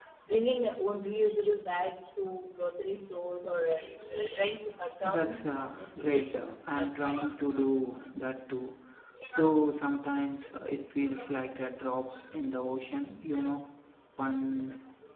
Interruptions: present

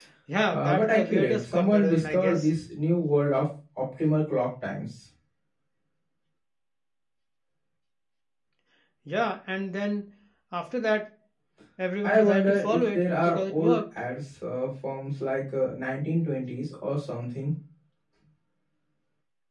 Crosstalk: present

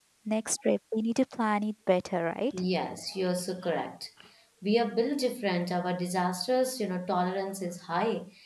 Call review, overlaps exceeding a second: none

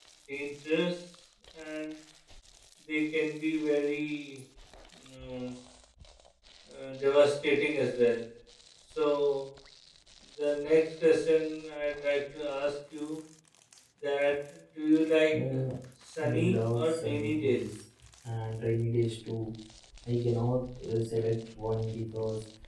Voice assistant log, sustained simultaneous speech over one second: present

